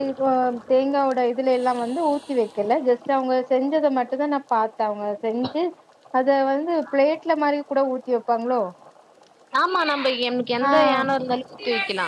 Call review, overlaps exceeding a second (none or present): none